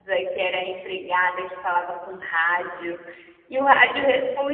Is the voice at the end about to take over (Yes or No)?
No